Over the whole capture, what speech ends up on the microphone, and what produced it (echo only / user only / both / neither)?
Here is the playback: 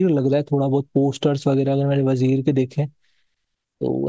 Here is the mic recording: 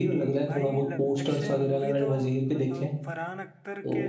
both